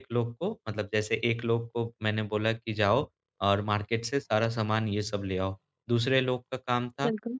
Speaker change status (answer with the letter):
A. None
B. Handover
A